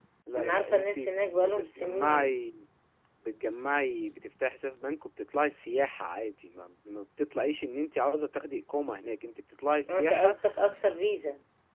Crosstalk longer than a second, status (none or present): present